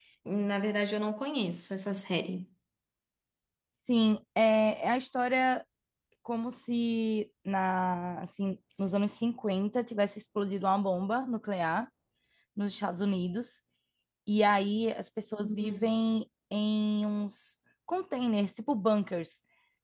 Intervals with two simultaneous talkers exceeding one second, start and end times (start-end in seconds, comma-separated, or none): none